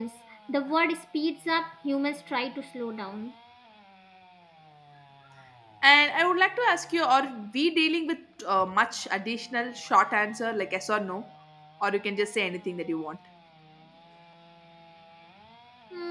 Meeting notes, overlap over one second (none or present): none